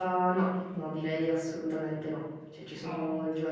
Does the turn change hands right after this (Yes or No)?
No